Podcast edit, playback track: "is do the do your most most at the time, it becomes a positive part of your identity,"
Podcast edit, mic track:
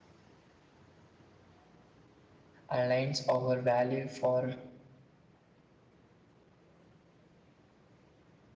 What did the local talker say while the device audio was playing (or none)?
aligns our value for